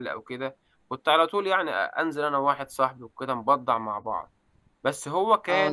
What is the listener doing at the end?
taking over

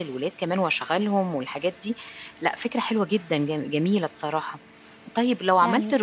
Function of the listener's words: listening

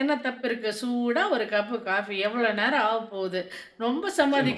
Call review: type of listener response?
listening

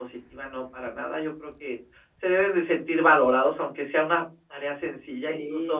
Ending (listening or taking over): listening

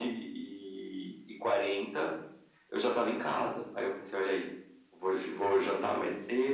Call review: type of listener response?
listening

